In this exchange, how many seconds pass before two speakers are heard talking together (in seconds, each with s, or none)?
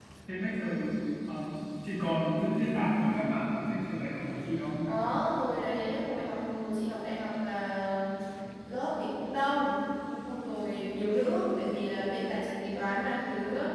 none